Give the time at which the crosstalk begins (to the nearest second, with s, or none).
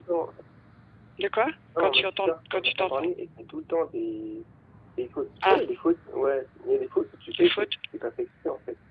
2 s